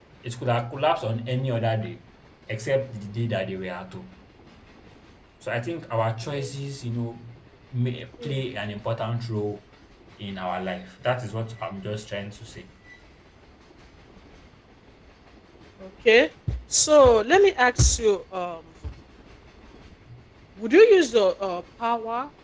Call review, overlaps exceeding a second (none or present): none